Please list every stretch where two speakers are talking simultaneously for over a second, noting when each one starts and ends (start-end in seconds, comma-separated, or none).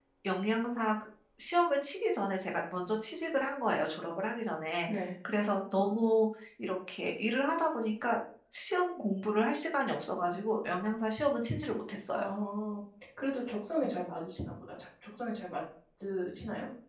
none